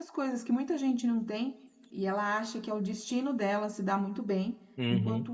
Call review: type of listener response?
listening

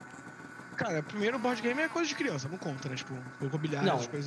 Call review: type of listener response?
taking over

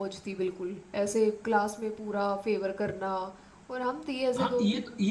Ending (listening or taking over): taking over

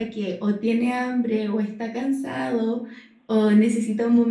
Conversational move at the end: listening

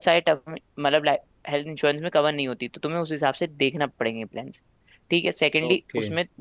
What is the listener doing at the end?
listening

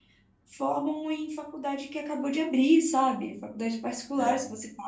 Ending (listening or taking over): listening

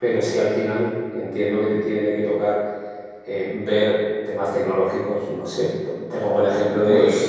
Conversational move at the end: listening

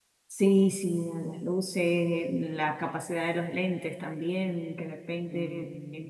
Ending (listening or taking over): listening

